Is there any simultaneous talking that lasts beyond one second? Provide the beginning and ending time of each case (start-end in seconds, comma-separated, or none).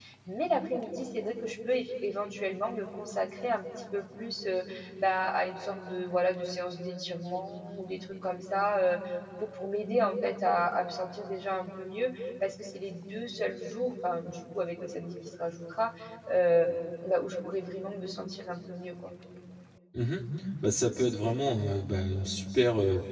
none